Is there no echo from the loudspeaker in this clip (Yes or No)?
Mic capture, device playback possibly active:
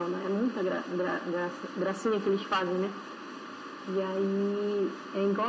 No